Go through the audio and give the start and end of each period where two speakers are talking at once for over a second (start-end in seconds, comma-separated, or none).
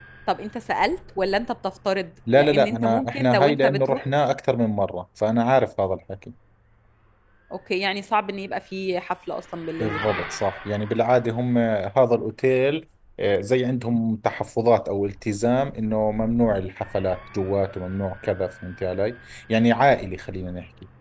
2.4-4.0